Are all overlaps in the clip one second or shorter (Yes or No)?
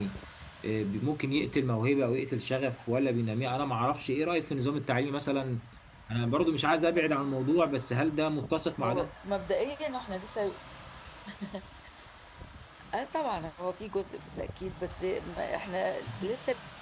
Yes